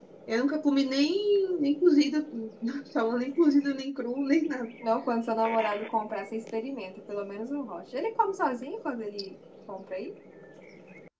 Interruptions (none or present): none